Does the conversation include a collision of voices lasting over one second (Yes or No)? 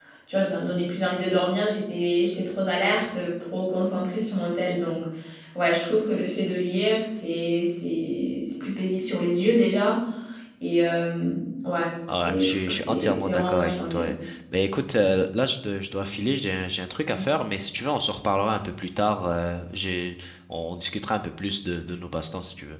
Yes